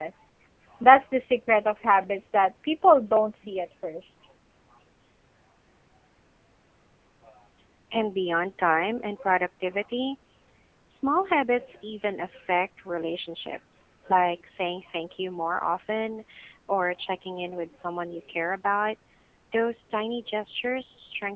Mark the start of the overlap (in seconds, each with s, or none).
none